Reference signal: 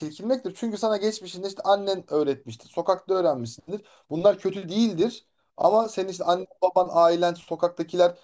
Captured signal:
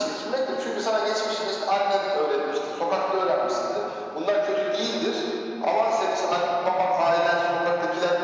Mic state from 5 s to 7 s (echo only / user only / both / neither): echo only